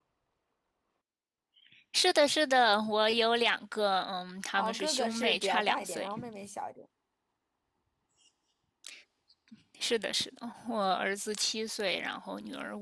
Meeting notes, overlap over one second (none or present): present